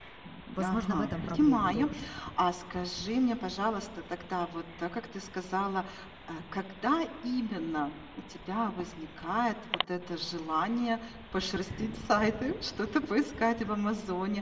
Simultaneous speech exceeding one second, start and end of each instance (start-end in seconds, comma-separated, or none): 0.6-1.9